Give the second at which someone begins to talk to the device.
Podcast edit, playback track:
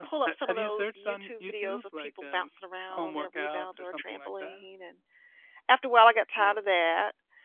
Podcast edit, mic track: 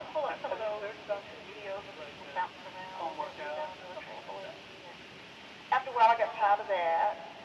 none

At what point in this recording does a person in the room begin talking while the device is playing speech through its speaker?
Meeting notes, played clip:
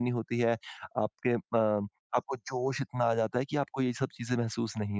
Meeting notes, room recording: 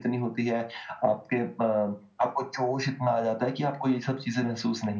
none

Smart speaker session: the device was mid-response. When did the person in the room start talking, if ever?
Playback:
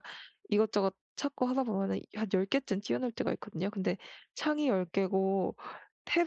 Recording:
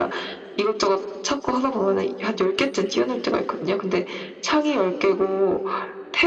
none

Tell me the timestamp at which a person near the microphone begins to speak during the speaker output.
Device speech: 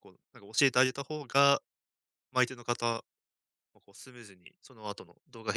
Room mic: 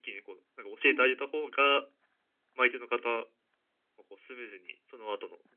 0.8 s

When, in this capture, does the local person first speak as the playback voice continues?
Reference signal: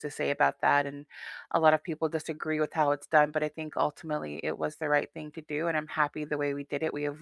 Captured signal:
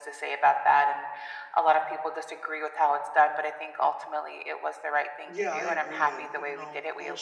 5.2 s

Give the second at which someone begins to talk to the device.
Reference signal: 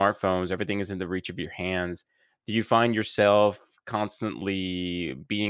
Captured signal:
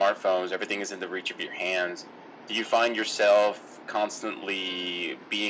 none

